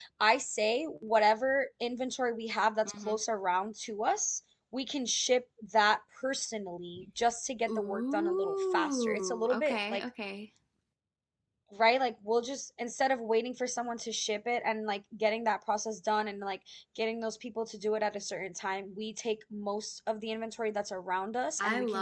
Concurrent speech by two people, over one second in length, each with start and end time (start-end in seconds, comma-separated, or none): 7.7-10.0